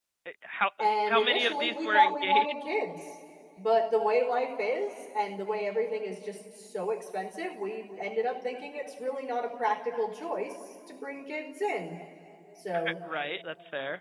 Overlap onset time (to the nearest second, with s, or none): 1 s